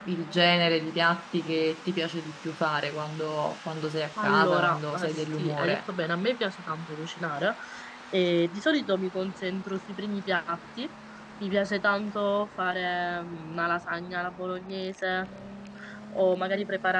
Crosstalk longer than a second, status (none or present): present